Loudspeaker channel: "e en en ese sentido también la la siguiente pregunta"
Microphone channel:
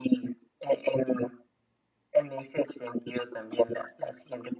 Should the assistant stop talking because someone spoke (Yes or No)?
No